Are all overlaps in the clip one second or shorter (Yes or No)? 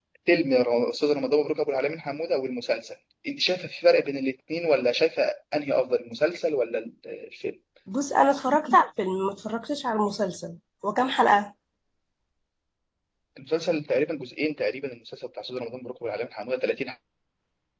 Yes